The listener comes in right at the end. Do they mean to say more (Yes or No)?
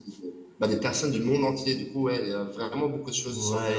Yes